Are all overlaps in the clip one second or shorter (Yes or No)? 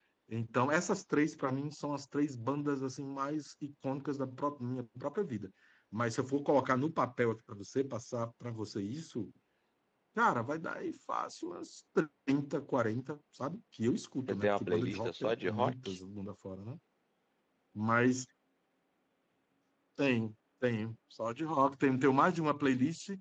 No